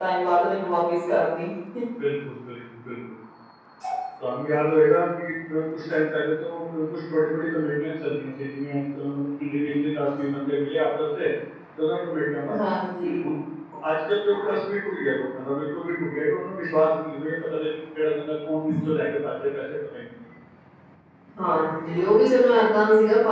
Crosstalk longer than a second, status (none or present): none